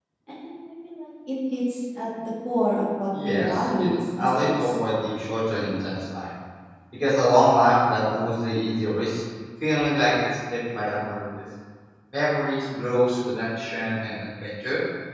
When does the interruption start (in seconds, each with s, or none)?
3.1 s